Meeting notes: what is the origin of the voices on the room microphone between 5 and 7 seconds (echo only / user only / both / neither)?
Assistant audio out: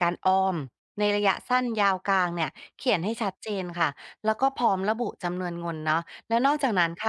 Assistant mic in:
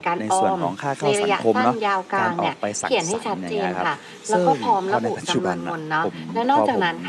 both